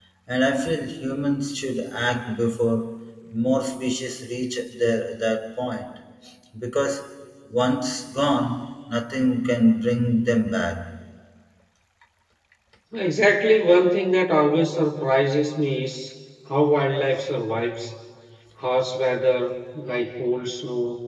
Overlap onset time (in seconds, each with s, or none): none